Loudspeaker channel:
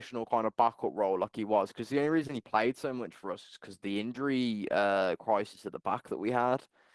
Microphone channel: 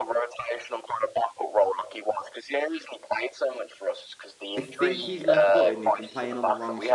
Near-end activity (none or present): present